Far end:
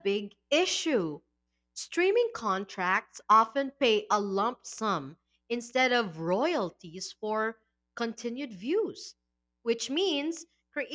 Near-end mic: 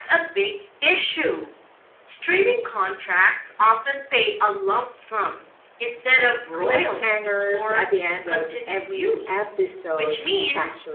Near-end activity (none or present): present